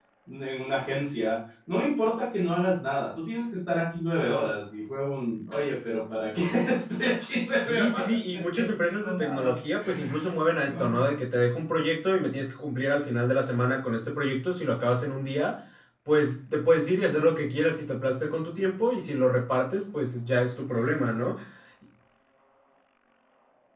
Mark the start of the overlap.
7.6 s

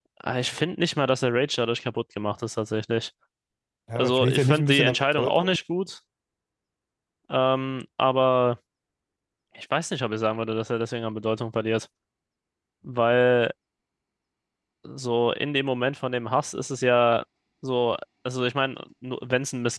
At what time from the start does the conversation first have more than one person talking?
4.0 s

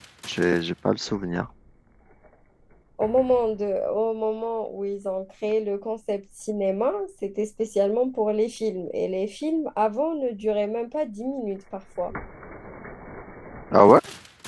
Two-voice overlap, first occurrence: none

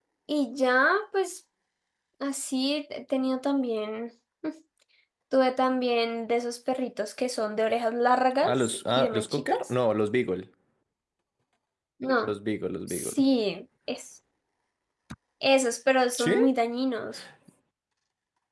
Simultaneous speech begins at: 8.4 s

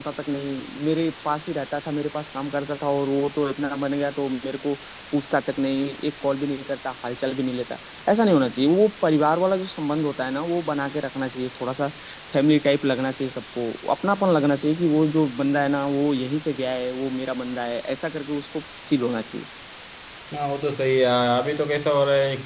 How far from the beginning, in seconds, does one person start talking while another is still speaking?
none

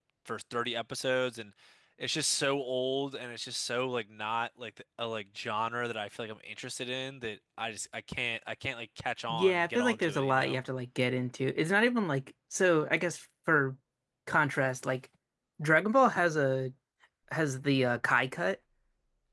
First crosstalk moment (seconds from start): 9.3 s

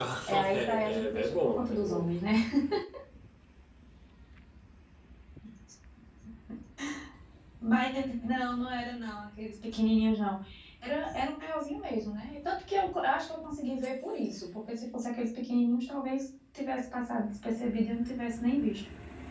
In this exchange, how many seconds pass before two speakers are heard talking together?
0.5 s

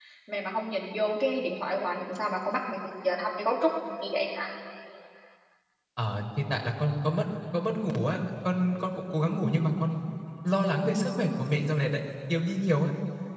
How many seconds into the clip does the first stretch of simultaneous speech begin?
none

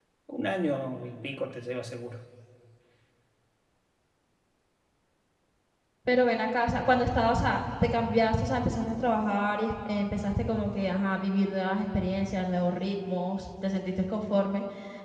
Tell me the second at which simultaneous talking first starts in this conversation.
none

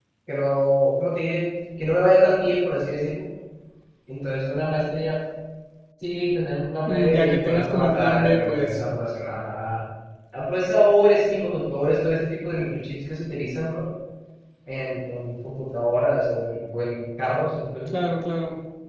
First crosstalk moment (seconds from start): 6.8 s

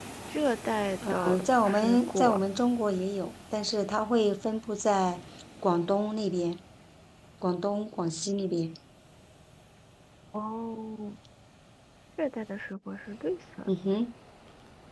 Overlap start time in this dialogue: 1.1 s

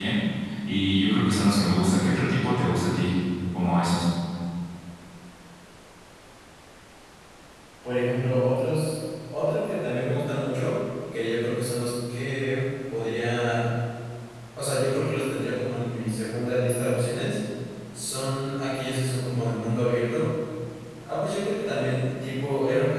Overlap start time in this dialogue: none

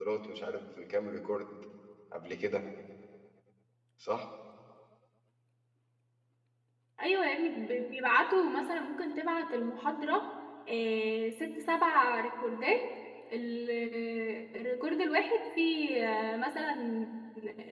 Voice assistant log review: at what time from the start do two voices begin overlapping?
none

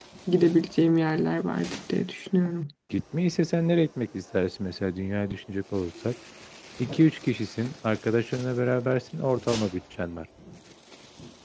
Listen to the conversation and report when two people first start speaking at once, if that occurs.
none

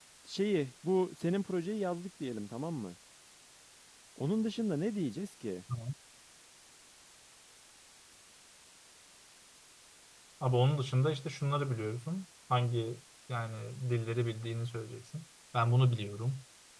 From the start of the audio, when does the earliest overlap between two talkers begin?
none

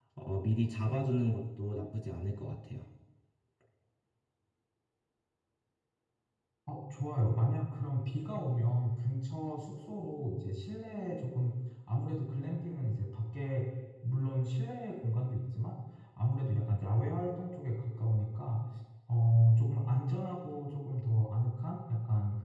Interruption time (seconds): none

